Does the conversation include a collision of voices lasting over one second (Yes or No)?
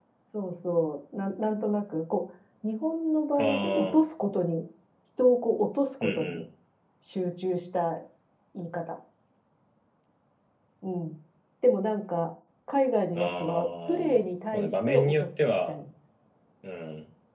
Yes